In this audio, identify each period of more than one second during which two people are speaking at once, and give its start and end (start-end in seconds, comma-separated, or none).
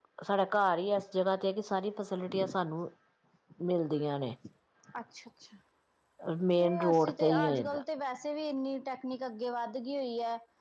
6.6-7.8